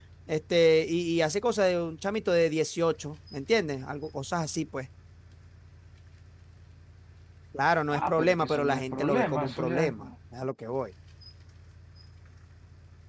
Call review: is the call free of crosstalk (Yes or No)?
No